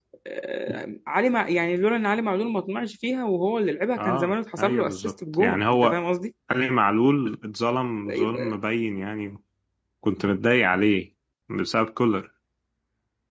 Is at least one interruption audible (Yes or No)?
Yes